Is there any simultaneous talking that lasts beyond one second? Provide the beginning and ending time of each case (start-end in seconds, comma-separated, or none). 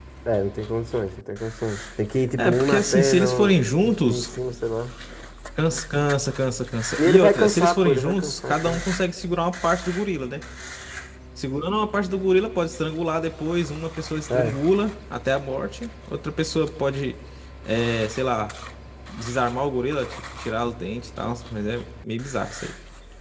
2.4-4.3, 7.0-8.8